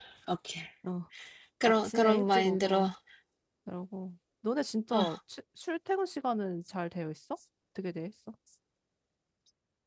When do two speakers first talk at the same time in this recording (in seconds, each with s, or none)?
1.6 s